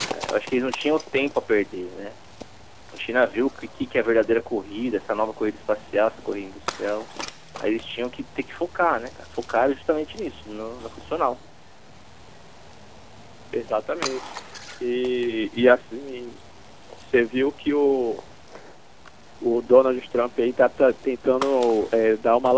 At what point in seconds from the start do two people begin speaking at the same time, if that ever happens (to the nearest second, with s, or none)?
none